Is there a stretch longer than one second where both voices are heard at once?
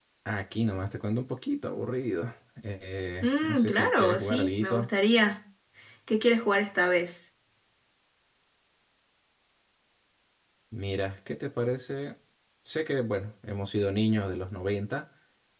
Yes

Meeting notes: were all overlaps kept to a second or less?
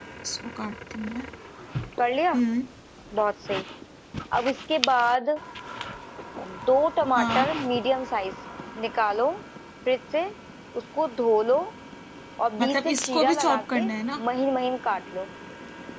No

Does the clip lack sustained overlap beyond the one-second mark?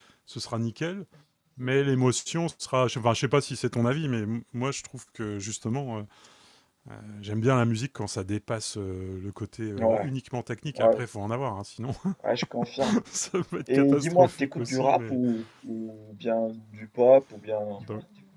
No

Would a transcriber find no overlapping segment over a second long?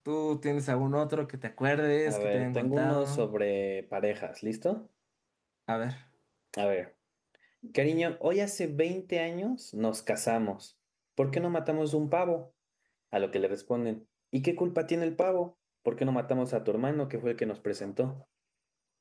No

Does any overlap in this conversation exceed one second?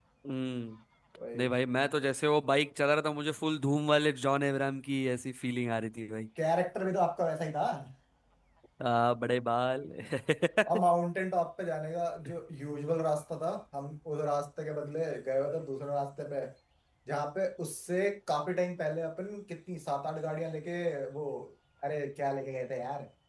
No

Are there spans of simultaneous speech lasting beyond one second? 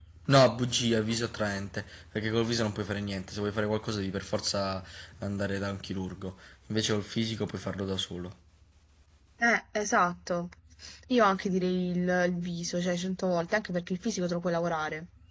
No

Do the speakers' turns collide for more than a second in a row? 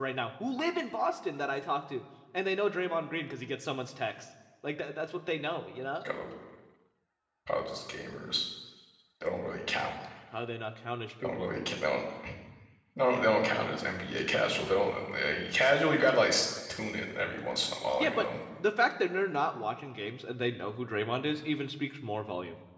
No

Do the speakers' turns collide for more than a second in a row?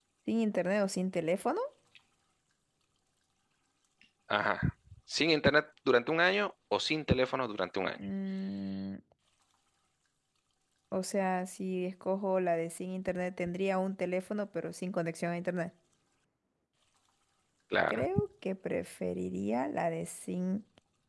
No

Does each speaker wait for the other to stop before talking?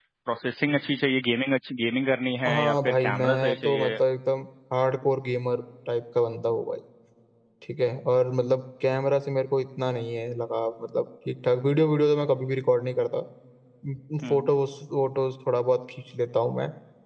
No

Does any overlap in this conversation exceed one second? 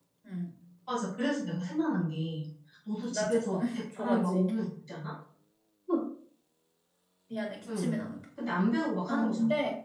Yes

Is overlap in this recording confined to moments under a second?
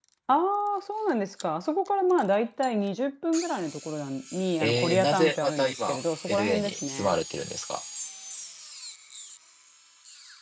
No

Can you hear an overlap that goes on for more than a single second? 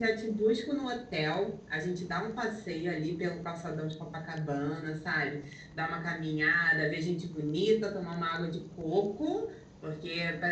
No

